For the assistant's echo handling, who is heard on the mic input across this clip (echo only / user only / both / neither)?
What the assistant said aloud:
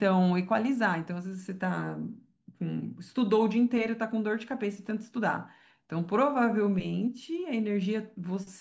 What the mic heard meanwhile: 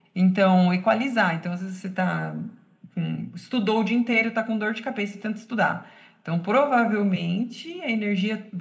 echo only